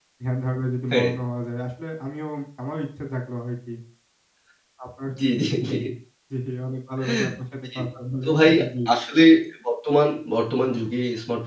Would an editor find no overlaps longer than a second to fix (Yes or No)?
Yes